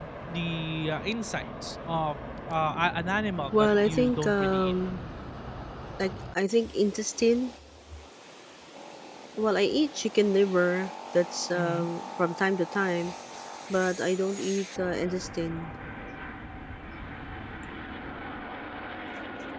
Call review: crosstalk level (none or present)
present